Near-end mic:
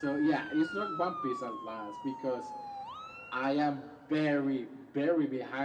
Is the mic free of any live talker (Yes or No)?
Yes